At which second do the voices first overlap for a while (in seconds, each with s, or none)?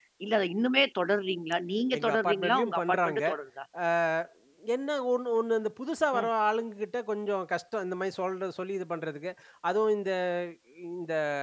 1.9 s